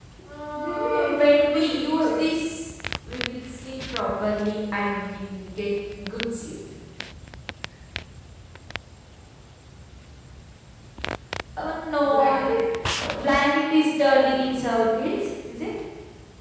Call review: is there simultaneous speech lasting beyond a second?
Yes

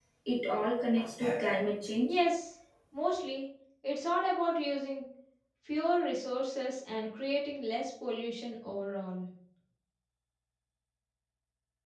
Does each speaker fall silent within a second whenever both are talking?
Yes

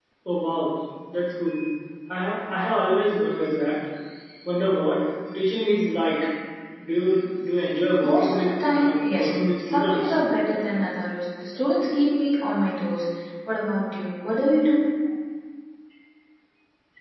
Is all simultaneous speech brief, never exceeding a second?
No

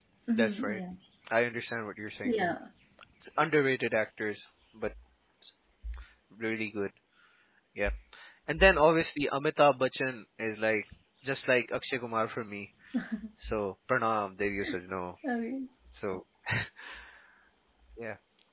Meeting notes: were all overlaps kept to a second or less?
Yes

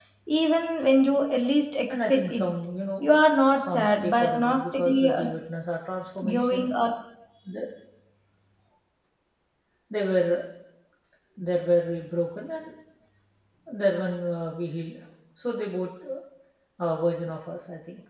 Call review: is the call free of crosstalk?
No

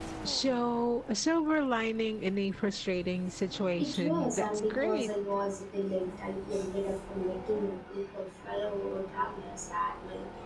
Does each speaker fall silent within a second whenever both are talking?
No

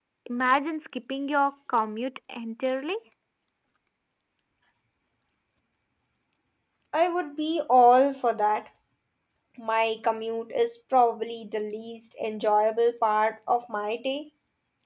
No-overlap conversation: Yes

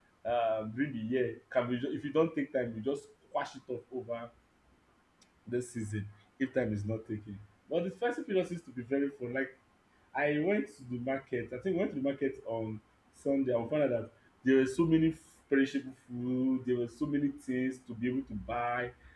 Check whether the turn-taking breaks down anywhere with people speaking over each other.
No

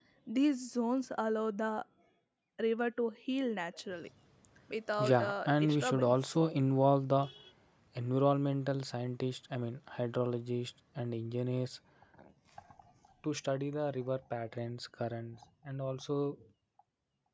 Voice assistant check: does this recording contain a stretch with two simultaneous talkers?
Yes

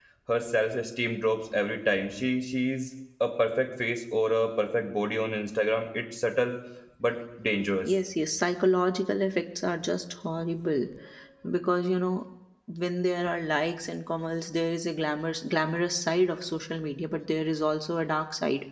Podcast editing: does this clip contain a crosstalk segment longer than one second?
No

